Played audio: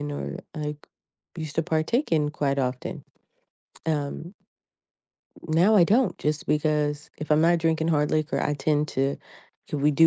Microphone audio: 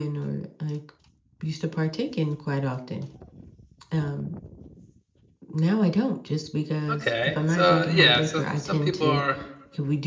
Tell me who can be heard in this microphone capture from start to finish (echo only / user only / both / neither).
both